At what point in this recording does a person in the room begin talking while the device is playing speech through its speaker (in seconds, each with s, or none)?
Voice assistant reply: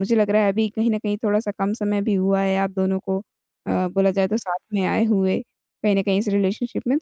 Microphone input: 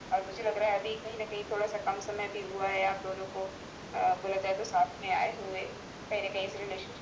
none